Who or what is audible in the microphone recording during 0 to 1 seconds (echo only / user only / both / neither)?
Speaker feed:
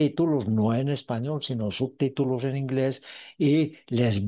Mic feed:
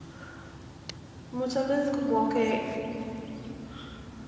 neither